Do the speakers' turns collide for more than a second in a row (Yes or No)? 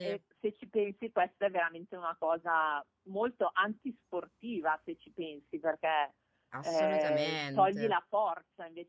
Yes